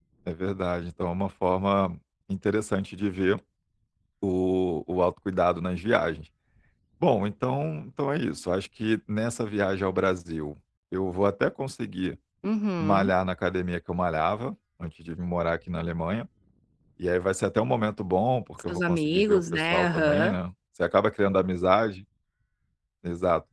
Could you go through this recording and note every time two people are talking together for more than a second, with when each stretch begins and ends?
18.6-20.3

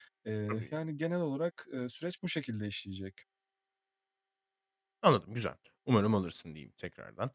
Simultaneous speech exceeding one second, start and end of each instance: none

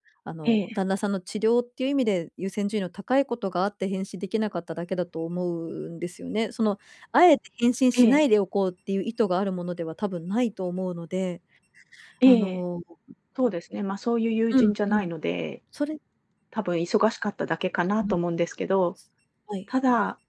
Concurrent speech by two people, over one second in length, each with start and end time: none

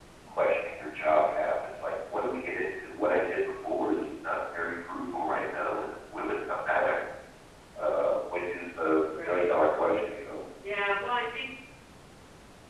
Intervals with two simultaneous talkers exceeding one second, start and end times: none

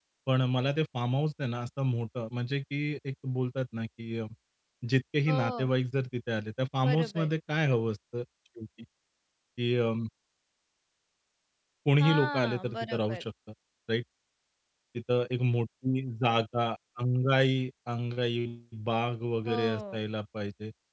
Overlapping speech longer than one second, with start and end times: 12.0-13.2

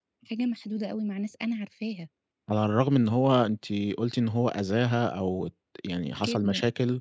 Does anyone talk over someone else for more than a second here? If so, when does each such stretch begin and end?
none

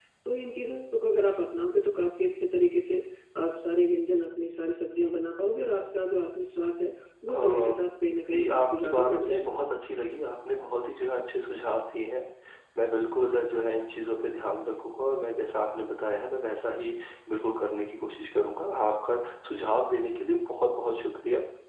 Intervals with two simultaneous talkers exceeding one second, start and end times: 8.3-9.6

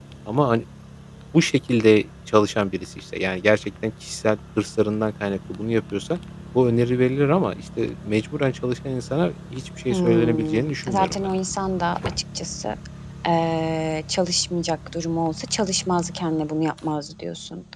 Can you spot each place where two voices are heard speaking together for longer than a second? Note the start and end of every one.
9.9-11.3

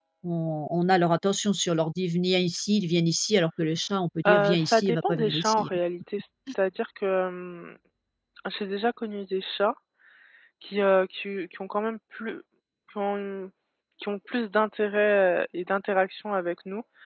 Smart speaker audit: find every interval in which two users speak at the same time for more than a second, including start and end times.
4.2-5.8

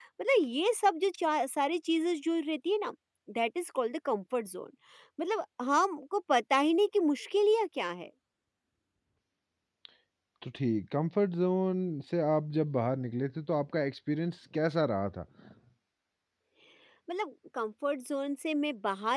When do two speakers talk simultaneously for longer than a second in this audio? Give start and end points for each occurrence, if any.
none

